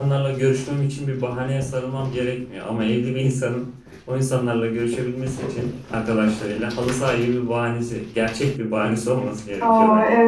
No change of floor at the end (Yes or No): No